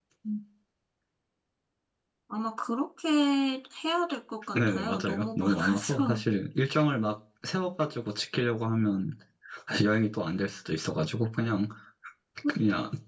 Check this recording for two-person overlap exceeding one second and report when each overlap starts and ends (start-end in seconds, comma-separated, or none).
4.5-6.2